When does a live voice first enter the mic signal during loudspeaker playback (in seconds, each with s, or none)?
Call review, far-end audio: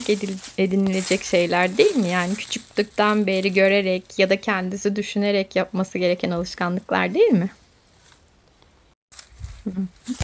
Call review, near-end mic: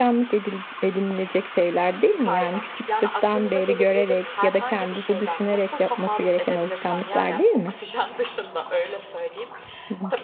2.2 s